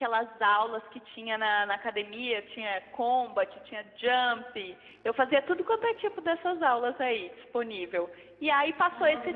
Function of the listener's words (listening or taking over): listening